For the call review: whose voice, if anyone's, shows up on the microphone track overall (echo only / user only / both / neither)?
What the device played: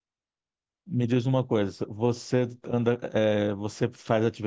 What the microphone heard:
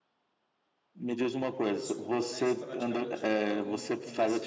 both